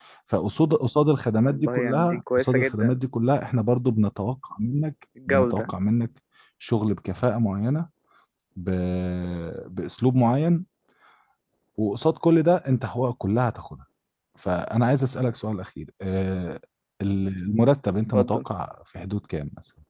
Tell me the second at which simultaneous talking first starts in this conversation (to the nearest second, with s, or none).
1 s